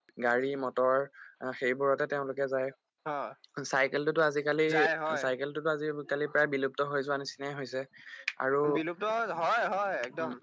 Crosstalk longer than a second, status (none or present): none